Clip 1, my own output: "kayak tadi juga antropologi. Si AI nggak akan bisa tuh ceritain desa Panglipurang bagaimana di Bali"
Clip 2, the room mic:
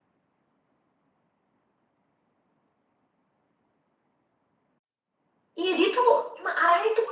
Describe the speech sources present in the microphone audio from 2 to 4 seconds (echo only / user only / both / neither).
neither